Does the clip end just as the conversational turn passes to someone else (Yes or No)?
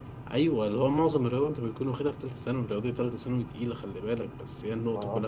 No